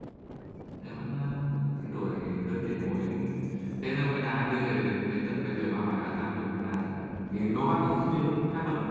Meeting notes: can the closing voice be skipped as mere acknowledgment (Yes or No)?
Yes